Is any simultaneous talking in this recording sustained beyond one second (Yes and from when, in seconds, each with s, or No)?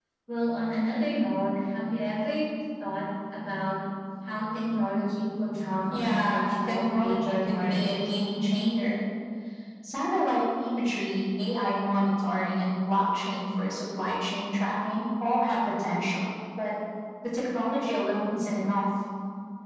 Yes, from 5.9 s